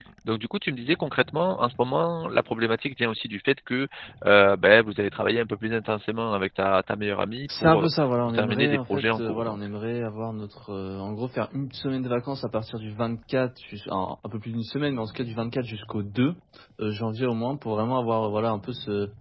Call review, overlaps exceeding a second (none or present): present